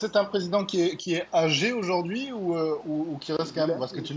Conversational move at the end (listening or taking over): listening